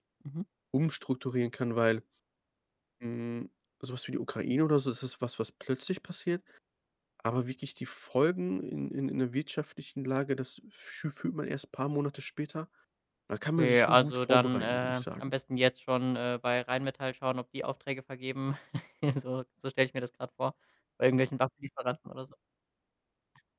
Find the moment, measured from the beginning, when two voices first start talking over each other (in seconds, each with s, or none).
13.6 s